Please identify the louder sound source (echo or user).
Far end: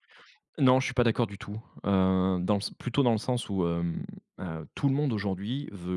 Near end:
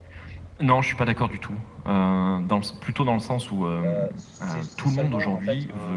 echo